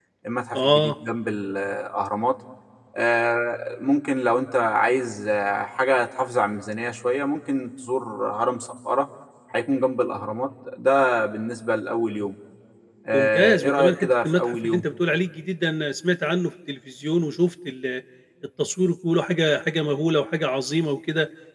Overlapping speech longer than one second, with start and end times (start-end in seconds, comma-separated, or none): 13.1-14.8